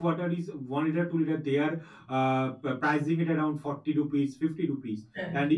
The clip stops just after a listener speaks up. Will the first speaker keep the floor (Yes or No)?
Yes